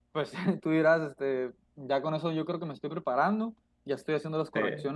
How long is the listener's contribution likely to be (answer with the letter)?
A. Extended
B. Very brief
B